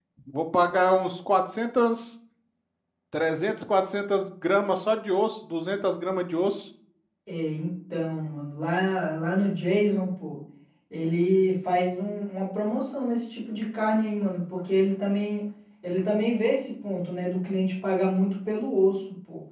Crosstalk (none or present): none